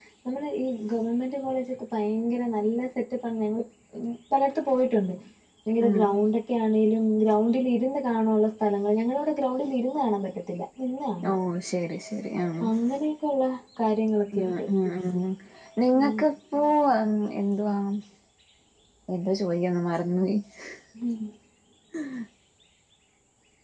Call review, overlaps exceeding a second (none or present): none